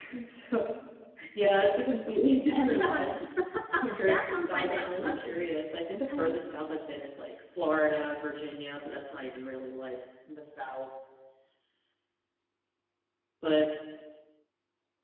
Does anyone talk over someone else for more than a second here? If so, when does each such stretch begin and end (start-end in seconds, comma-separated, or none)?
4.1-5.4